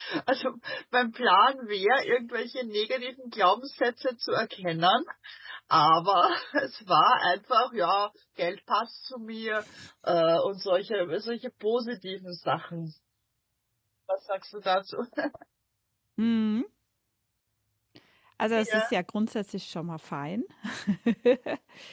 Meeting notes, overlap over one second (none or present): none